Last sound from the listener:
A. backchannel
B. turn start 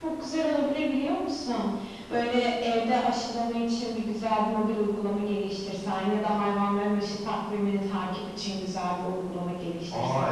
B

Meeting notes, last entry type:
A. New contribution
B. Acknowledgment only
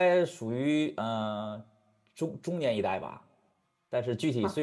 B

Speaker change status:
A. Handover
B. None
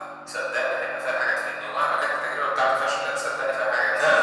A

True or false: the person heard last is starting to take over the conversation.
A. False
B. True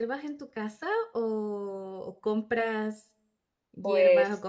A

